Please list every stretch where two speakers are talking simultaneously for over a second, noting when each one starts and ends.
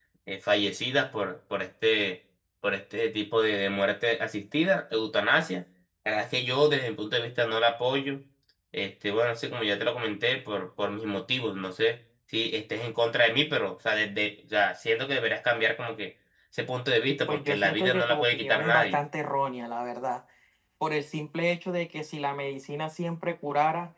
17.3-19.0

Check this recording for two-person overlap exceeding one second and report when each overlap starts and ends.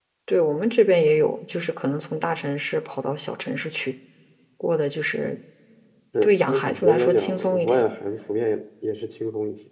6.2-7.8

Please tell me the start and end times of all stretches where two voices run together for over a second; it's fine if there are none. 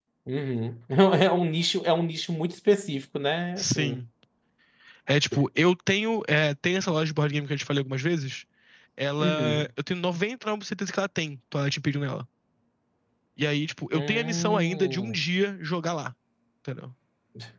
13.9-15.2

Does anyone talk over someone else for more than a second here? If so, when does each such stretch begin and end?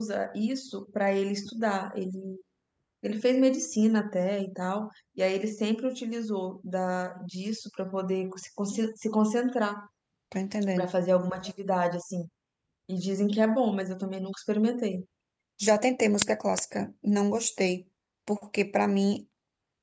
none

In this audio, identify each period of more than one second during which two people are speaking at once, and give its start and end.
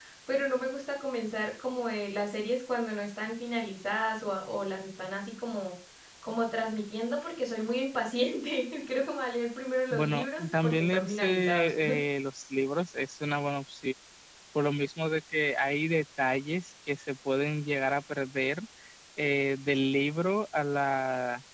9.9-11.7

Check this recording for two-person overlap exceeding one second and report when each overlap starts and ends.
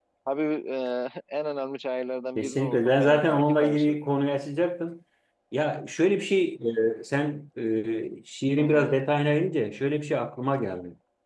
2.4-4.0

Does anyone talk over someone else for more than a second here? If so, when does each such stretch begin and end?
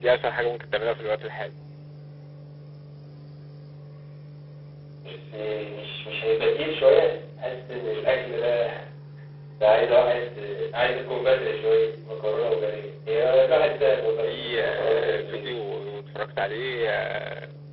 14.2-15.5

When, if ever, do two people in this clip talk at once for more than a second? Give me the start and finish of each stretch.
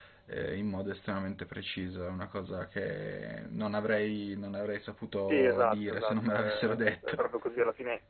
5.3-7.3

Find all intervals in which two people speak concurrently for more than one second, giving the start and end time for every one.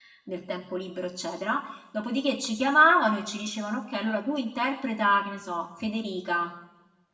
none

